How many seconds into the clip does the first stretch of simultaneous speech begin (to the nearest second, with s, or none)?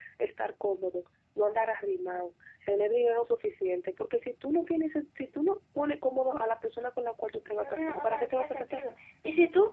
8 s